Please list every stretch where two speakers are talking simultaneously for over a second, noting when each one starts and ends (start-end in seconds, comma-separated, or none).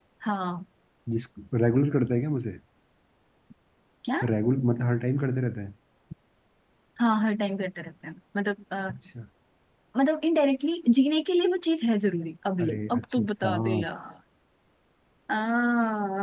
12.6-13.9